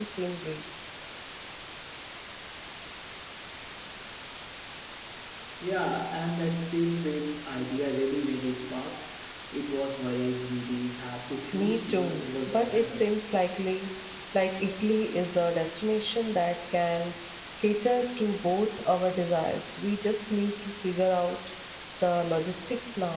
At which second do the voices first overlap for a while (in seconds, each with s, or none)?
11.5 s